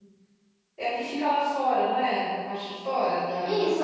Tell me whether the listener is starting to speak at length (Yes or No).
Yes